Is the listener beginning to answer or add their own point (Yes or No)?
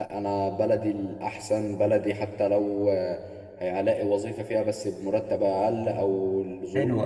Yes